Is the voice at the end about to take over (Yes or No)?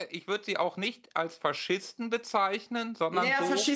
Yes